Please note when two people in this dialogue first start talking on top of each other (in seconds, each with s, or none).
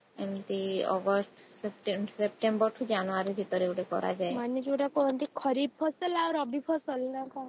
none